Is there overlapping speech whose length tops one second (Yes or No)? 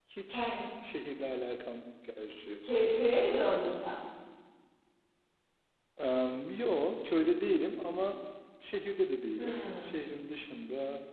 No